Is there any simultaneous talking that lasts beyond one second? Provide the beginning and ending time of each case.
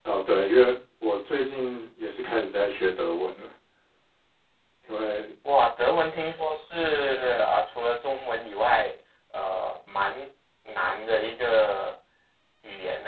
none

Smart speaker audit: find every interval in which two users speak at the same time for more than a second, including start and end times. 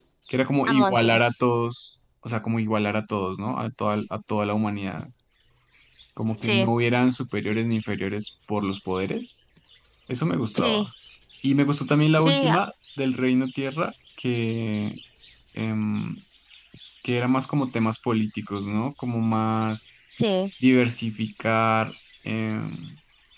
none

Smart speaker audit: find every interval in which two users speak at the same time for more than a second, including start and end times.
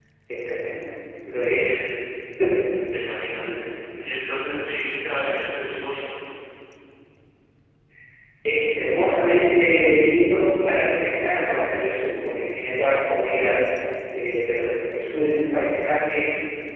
none

